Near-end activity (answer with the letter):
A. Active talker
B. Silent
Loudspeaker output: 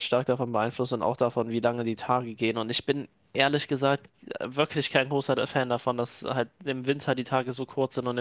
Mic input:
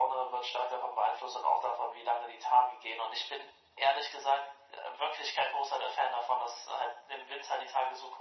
B